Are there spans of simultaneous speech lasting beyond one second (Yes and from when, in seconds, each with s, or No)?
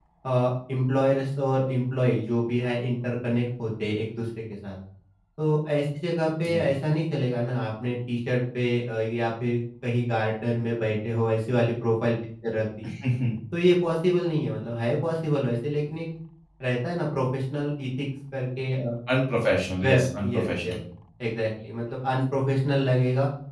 No